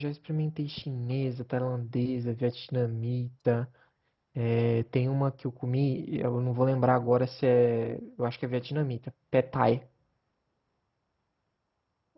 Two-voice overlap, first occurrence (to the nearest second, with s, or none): none